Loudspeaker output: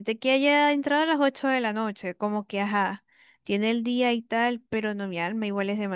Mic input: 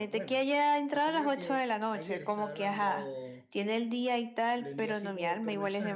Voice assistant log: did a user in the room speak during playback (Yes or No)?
Yes